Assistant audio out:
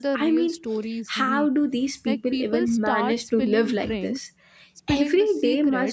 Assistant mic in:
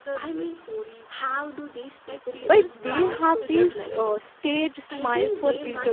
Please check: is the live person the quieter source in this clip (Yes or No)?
No